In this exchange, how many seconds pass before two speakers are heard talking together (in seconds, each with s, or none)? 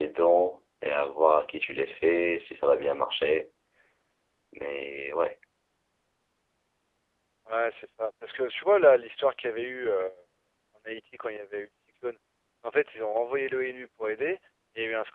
none